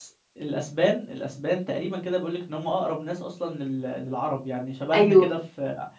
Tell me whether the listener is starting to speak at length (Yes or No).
No